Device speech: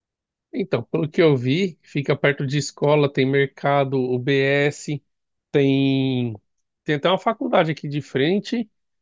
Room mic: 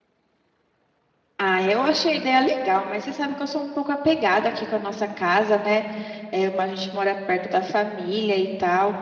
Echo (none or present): none